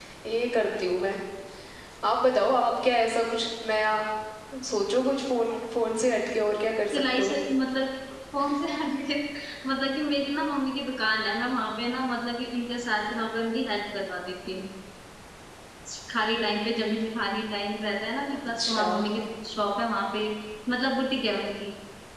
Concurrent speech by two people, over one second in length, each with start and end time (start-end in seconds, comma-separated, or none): none